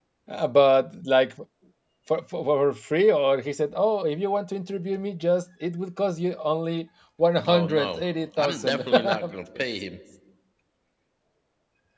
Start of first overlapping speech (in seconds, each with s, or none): 7.4 s